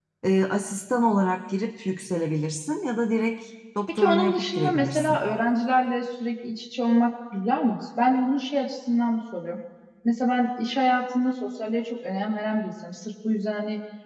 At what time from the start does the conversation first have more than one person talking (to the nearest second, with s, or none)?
4 s